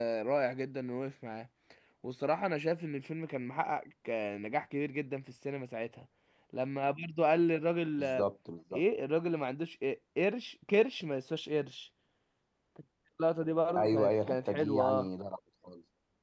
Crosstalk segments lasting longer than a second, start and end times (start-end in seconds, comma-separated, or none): 13.8-15.1